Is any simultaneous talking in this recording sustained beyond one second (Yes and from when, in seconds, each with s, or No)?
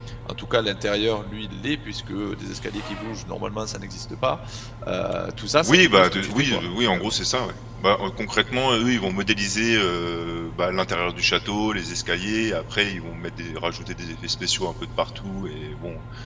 Yes, from 5.6 s